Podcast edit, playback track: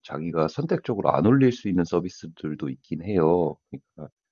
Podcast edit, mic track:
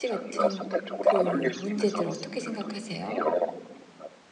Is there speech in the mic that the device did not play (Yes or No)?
Yes